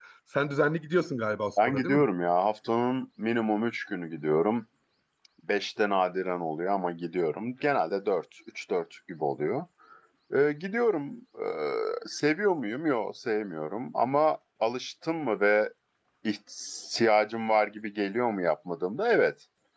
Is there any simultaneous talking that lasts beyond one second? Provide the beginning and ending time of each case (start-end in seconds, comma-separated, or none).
none